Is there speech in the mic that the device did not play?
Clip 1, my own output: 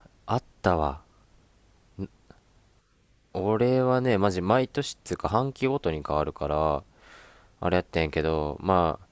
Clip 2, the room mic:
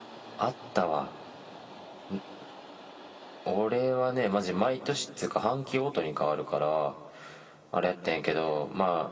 No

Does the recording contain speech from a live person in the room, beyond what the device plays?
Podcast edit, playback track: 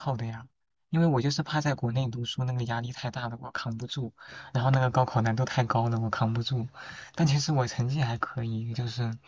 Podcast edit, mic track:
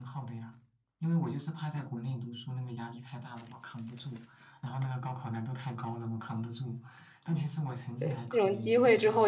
Yes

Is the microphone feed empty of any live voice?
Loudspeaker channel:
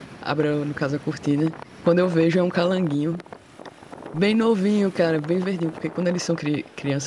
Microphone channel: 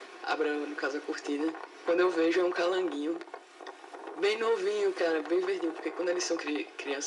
Yes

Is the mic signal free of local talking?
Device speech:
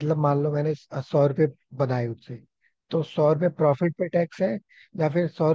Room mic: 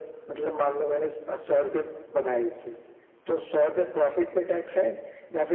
Yes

